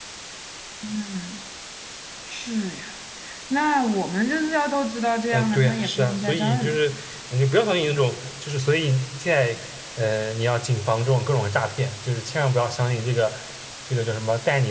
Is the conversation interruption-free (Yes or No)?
No